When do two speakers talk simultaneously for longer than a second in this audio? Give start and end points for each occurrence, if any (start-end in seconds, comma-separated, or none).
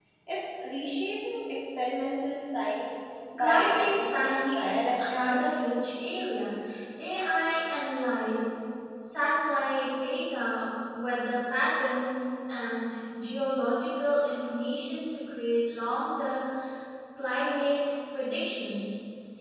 3.4-5.5